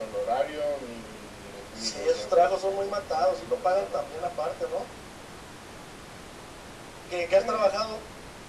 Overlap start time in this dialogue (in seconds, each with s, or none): 1.8 s